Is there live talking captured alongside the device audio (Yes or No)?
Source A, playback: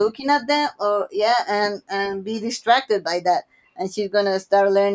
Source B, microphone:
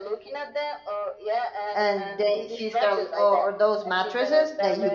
Yes